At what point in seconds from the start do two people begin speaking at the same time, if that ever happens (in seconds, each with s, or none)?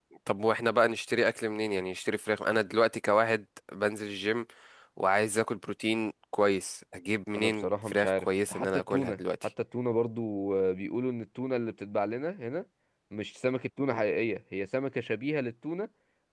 7.3 s